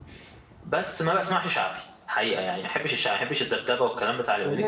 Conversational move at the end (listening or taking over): taking over